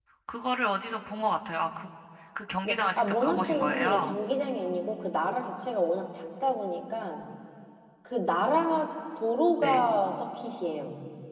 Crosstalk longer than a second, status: present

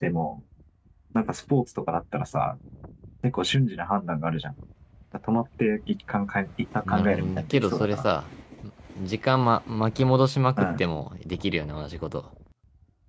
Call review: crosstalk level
present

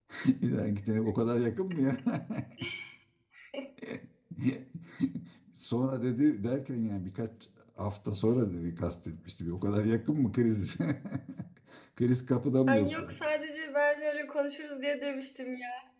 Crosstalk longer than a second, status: none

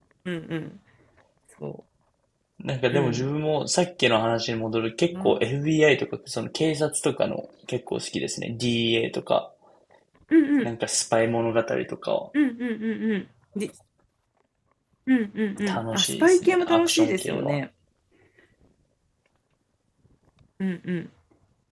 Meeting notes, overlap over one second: present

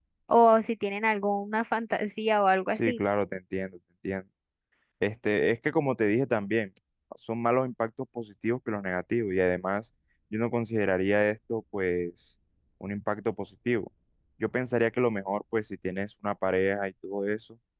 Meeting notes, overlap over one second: none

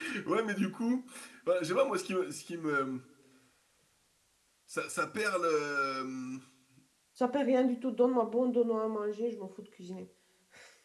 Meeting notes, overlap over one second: none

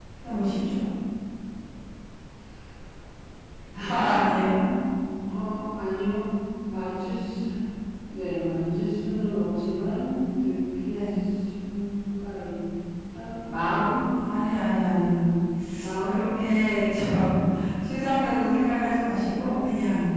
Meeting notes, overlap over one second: none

